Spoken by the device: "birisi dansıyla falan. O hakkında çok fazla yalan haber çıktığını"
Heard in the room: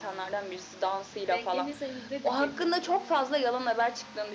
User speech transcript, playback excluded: denk gelirsen izle diyecektim.

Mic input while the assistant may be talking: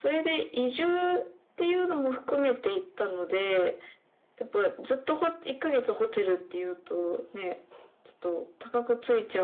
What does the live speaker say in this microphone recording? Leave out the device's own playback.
none

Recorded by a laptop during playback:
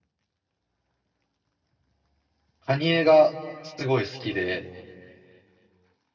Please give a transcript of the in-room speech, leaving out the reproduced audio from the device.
カニエがすごい好きで、

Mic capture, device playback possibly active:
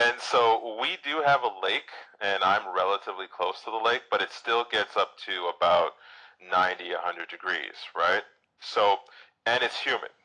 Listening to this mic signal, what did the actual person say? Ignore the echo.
none

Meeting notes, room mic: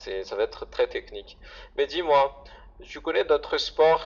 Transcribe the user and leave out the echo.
none

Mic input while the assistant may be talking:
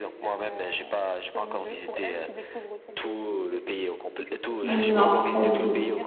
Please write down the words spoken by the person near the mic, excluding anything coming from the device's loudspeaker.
Non, pas du tout.

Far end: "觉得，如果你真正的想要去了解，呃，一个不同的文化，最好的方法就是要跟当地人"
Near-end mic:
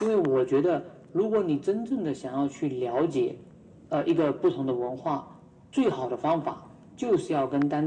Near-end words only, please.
none

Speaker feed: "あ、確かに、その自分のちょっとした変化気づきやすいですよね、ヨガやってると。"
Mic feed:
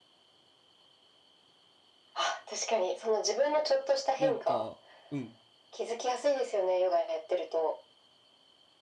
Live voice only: なんか、うん。

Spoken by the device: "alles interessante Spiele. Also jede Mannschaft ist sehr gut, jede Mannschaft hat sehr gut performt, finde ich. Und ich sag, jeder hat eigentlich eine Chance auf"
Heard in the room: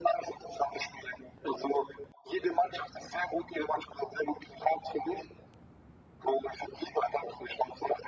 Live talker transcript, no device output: none

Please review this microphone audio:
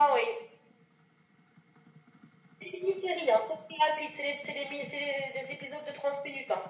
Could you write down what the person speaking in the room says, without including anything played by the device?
none

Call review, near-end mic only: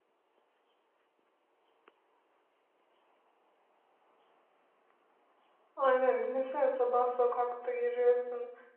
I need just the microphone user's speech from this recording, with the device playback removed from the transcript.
Aynen düşünsene sabah sokakta yürüyorsun

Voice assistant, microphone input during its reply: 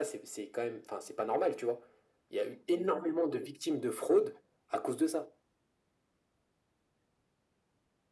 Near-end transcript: none

